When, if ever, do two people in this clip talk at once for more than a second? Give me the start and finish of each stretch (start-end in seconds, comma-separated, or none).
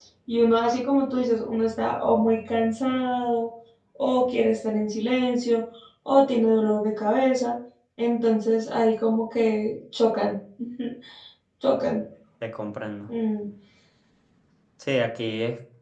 none